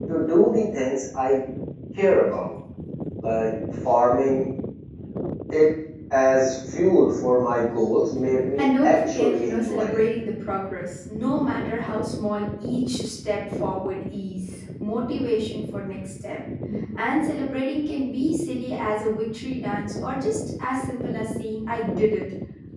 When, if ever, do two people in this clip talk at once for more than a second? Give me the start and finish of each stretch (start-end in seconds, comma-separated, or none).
8.6-10.1